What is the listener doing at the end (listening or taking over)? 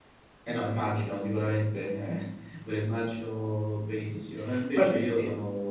listening